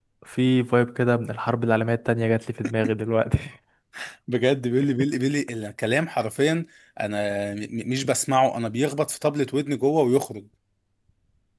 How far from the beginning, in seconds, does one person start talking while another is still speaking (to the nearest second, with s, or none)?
none